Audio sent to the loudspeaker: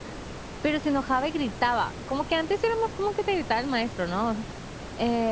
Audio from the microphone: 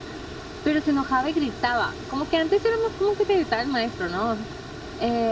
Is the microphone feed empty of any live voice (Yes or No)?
Yes